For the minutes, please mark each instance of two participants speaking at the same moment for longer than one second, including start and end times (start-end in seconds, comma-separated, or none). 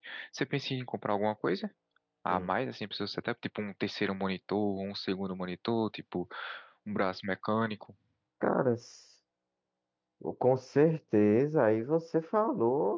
none